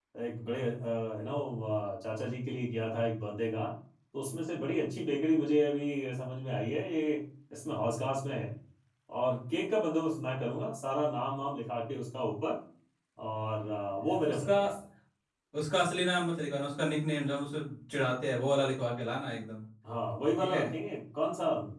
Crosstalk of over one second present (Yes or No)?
No